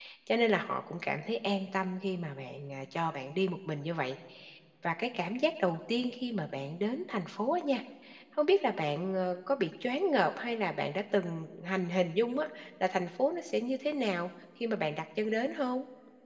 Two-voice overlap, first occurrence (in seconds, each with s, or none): none